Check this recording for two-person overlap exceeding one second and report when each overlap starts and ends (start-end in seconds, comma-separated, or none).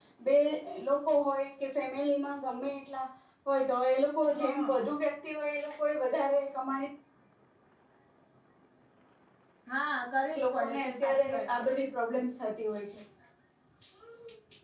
10.4-11.7